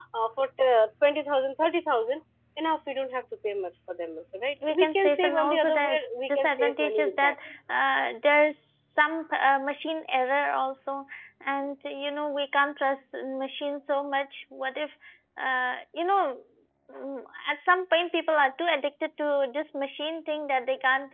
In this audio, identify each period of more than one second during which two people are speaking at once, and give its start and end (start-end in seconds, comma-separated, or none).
4.7-7.3